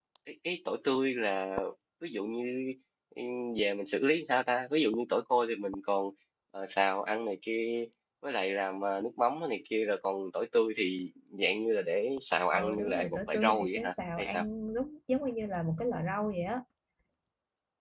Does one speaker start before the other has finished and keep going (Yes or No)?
Yes